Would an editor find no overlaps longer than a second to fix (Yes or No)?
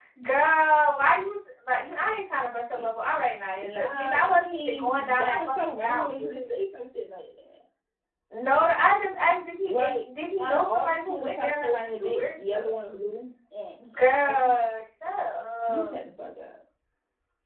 No